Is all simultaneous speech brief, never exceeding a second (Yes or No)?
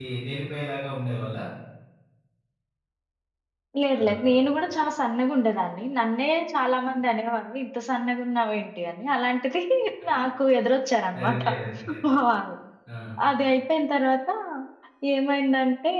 Yes